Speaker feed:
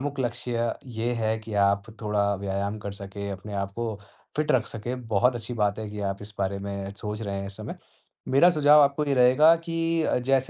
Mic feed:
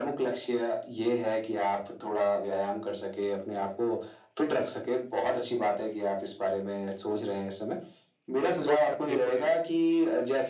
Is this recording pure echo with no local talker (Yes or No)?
No